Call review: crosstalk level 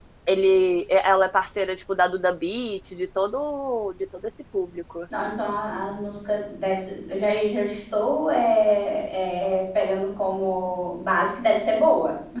none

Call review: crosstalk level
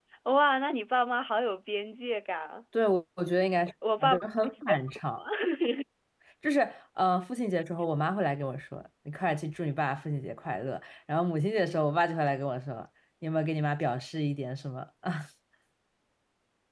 present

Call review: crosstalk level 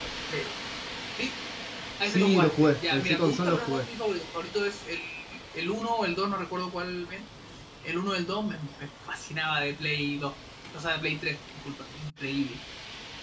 present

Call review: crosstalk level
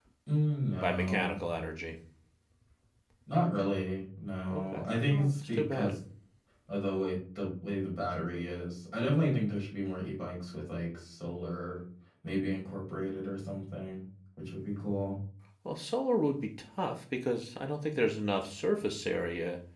present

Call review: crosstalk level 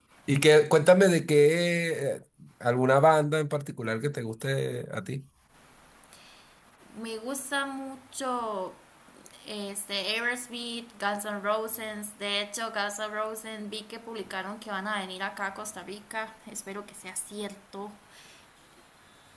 none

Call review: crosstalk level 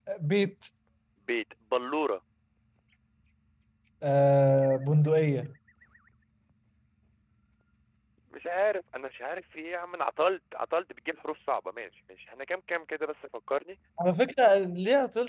none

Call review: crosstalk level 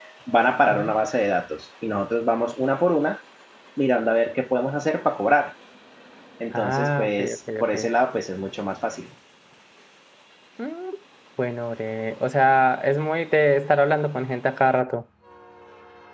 present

